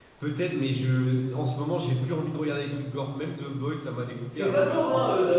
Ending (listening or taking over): taking over